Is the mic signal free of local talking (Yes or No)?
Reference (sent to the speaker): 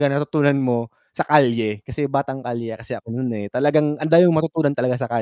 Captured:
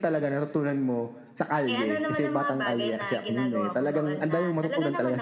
No